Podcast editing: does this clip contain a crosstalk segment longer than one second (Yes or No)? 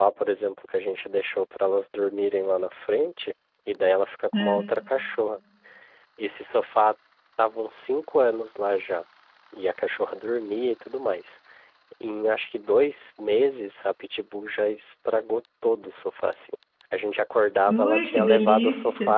Yes